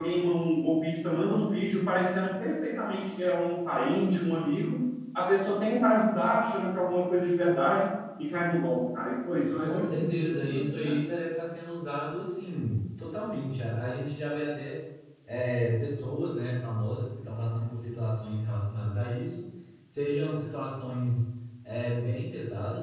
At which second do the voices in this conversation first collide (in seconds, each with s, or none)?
9.6 s